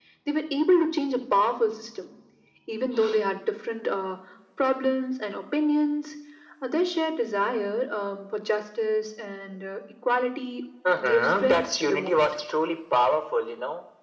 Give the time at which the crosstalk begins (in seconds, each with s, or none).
10.8 s